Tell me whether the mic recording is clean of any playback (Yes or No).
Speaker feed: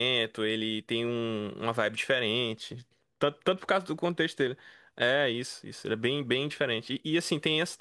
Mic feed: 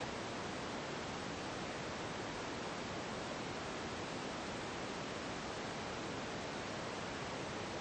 Yes